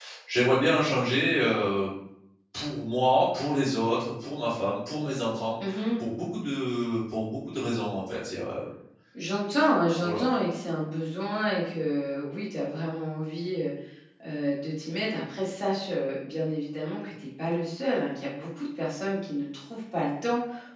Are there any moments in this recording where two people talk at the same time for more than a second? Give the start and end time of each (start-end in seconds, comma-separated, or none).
none